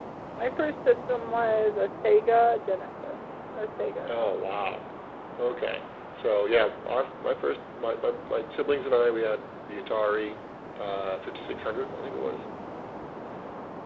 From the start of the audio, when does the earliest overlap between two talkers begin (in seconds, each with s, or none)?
none